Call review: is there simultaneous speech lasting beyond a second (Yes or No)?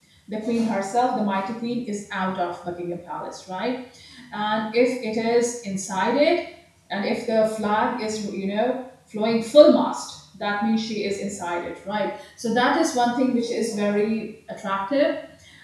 No